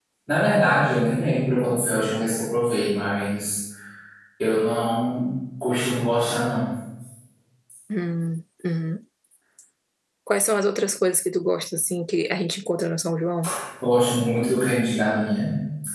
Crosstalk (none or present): none